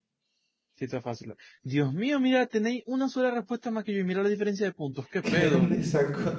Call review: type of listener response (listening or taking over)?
taking over